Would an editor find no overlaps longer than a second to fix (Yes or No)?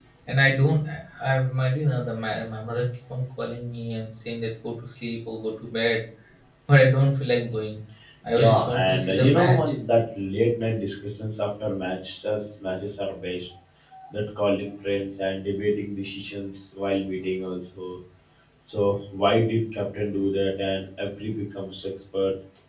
No